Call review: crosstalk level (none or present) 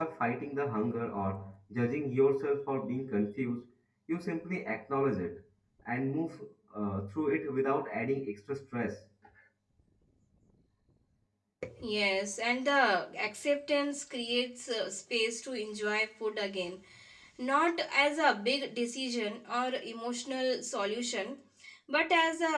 none